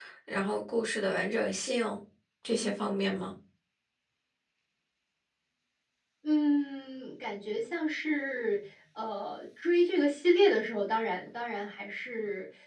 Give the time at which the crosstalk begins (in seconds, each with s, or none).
none